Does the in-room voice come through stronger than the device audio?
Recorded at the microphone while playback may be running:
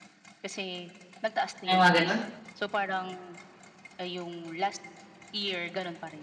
Yes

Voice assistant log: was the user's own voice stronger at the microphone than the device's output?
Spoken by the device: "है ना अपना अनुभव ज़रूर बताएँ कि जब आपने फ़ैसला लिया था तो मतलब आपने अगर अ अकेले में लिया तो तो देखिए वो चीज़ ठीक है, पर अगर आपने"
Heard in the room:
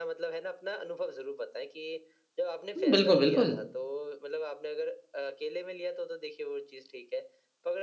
Yes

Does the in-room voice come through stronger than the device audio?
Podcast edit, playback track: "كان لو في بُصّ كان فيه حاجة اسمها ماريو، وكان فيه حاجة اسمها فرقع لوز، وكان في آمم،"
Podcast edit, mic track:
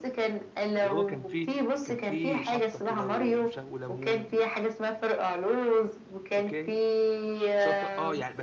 No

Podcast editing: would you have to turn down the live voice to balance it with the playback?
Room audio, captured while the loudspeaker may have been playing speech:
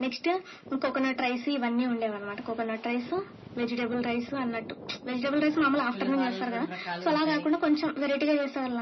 No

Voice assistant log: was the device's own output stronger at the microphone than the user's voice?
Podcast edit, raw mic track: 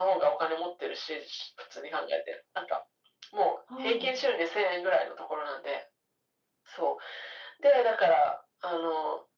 Yes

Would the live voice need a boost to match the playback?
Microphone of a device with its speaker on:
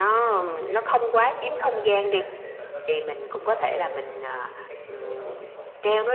Yes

